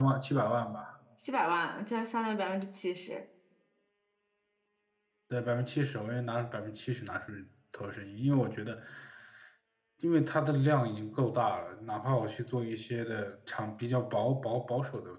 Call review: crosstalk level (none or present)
none